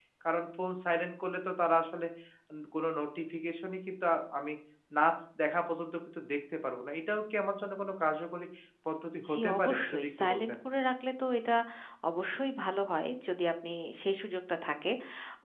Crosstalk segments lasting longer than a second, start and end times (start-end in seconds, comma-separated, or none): 9.3-10.6